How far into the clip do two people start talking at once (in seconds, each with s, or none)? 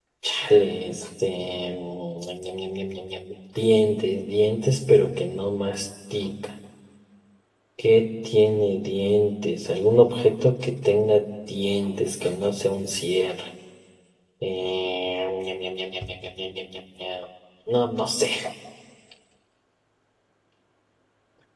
none